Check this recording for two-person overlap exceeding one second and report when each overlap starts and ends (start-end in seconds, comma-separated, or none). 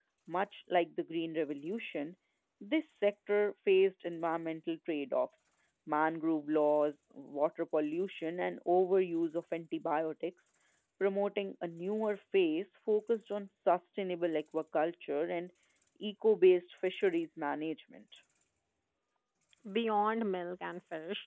none